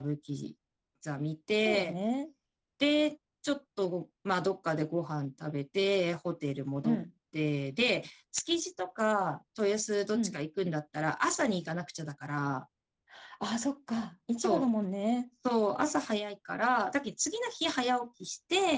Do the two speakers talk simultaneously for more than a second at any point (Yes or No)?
No